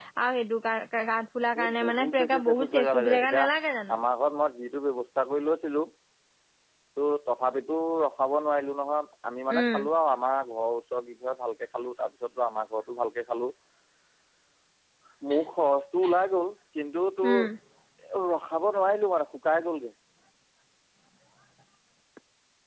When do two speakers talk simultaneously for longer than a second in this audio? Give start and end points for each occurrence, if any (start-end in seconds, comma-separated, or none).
1.6-3.4